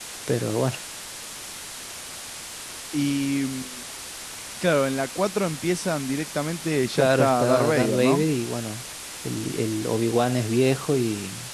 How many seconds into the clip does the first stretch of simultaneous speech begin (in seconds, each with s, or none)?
6.9 s